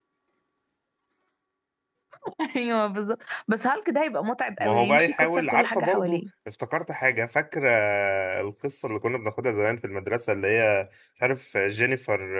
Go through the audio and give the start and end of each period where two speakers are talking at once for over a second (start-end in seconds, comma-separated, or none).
4.6-6.2